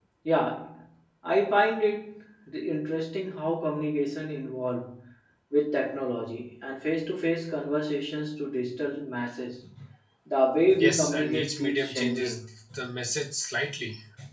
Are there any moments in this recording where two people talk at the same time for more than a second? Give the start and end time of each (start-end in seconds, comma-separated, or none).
10.8-12.4